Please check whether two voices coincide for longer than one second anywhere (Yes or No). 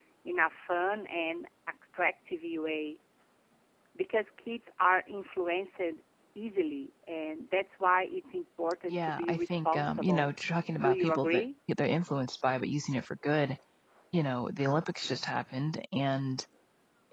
Yes